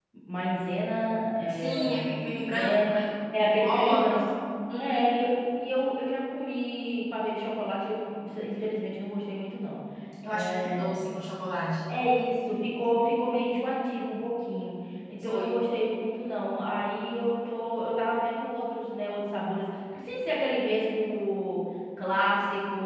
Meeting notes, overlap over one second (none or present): present